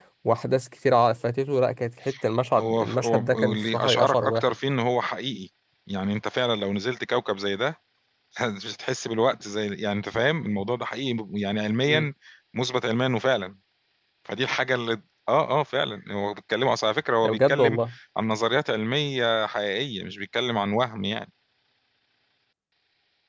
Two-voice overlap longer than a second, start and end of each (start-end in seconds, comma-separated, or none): 2.6-4.5